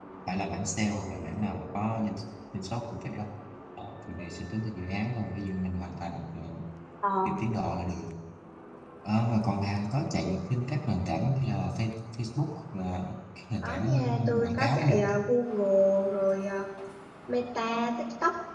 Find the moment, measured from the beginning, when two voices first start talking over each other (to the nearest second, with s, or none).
14 s